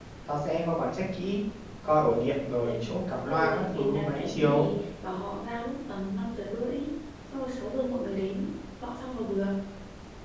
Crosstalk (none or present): present